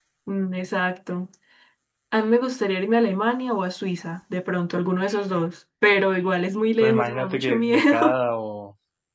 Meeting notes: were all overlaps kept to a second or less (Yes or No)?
No